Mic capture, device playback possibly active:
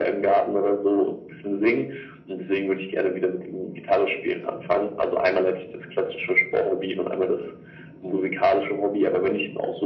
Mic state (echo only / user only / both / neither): echo only